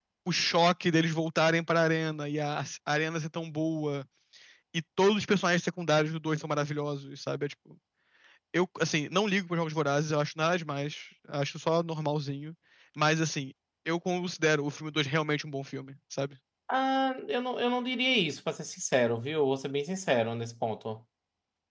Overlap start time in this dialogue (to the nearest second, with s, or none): none